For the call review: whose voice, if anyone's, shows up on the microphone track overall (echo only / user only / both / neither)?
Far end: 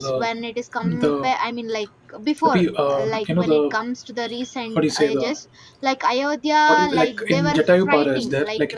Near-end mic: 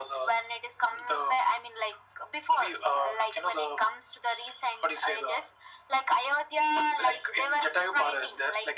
echo only